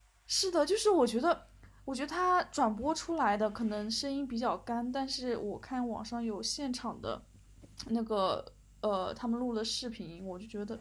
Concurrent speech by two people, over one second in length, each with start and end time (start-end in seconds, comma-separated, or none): none